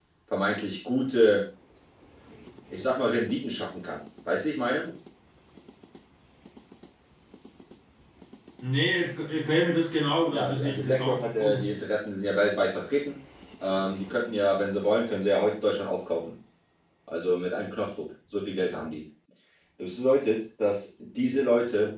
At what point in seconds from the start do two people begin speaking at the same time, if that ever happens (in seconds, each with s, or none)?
10.3 s